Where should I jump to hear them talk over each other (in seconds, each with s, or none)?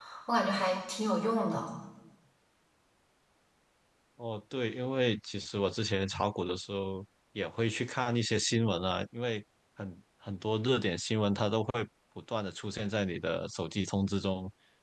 none